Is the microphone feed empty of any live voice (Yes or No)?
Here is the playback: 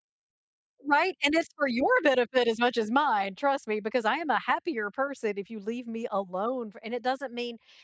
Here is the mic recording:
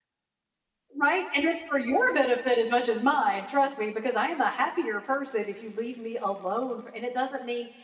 Yes